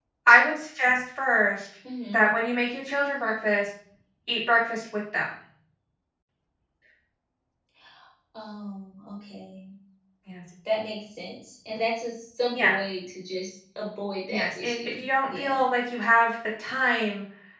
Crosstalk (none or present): present